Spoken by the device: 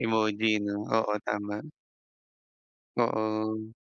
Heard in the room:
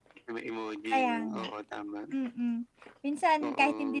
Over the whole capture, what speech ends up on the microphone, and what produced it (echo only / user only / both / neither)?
both